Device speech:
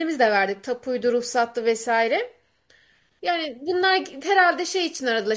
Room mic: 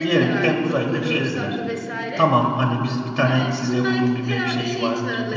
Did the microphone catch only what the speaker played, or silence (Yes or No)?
No